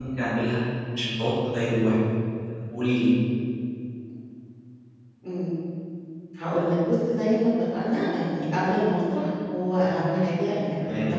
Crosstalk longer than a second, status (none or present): none